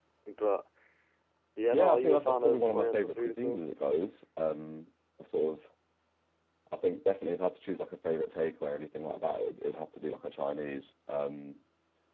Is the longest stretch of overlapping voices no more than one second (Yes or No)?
No